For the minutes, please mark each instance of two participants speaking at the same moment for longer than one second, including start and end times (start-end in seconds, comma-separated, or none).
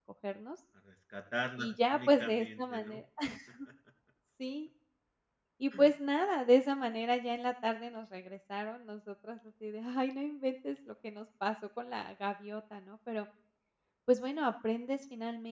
1.6-2.9